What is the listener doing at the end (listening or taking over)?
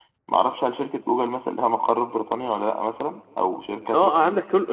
taking over